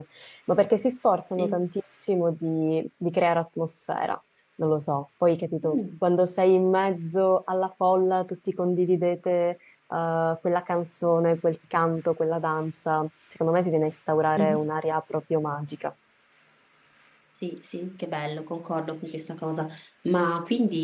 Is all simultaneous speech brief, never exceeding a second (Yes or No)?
Yes